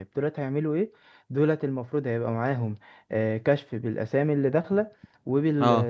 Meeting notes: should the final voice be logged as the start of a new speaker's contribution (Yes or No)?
No